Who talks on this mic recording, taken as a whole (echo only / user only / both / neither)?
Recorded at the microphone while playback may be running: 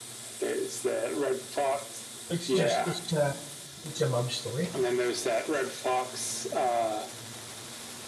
both